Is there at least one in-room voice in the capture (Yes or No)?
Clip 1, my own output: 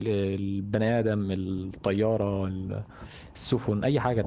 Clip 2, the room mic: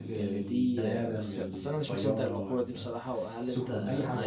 Yes